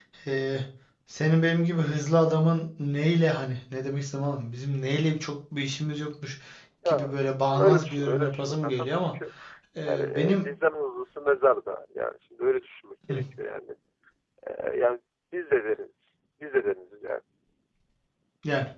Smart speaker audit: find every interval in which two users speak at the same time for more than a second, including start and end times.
7.5-9.1

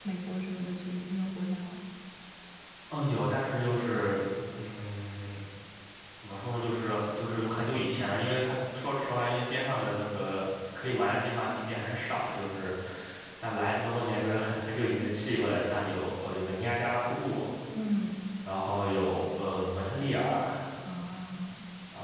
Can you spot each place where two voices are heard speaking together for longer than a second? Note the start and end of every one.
none

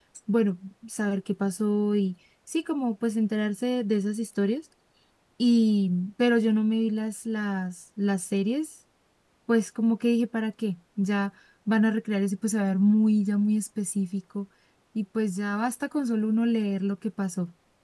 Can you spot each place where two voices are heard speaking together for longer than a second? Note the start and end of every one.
none

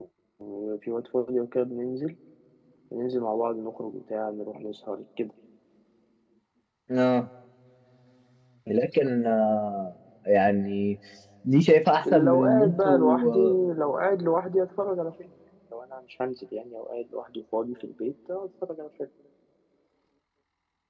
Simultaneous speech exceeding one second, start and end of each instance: 12.1-13.4

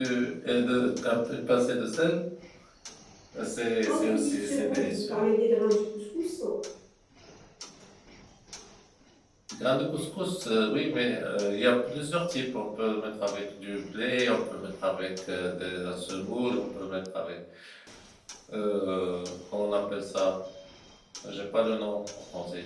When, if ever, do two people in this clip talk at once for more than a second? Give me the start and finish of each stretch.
3.9-5.2

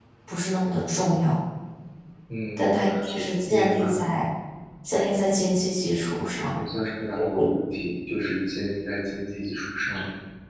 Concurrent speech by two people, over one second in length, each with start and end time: 2.6-4.0

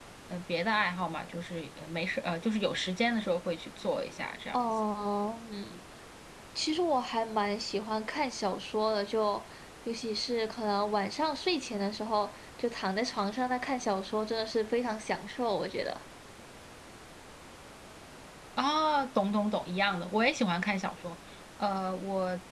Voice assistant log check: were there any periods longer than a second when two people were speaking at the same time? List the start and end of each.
none

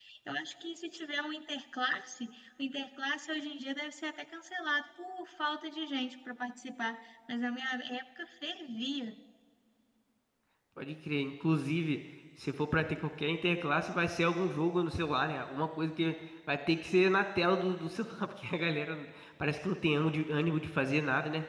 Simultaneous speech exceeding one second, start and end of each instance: none

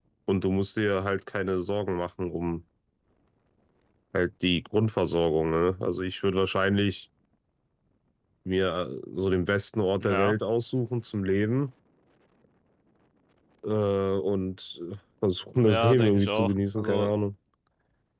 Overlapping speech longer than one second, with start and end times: 15.5-17.1

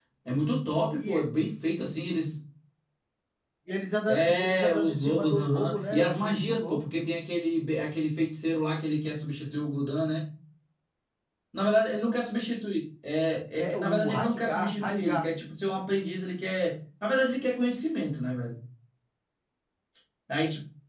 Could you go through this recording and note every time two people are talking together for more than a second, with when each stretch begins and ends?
4.1-6.8, 13.6-15.2

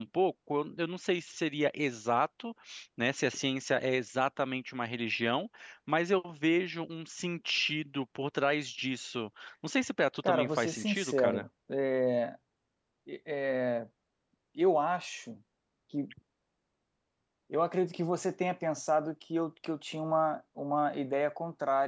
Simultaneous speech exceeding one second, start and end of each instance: 10.2-11.5

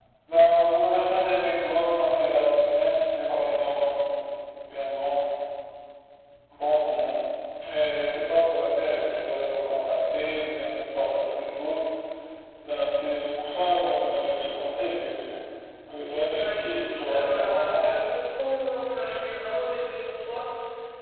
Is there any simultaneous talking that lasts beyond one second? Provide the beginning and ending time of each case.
16.4-17.9

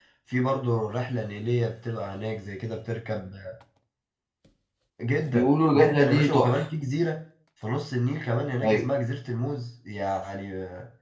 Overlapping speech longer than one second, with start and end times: 5.2-6.5

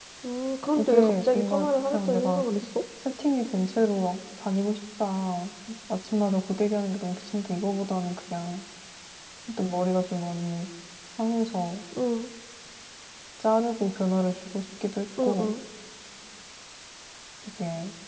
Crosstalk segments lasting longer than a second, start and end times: 0.8-2.4

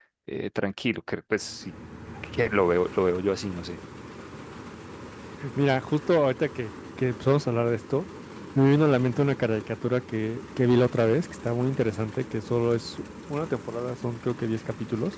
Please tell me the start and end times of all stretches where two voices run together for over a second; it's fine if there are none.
none

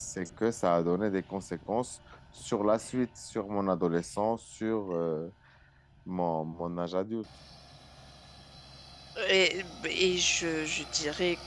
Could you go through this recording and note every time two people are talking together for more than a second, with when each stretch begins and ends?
none

